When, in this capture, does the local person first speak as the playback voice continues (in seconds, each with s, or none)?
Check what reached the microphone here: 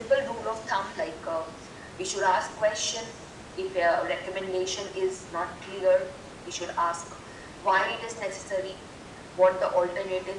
none